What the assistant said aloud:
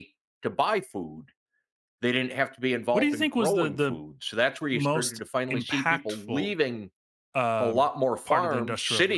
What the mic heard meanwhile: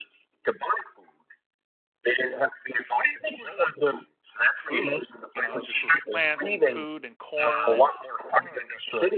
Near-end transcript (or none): food, you know, just with plants and food and corn and